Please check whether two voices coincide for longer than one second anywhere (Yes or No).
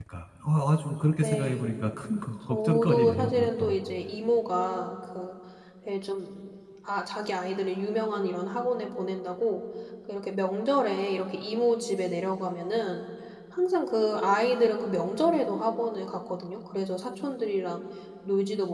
Yes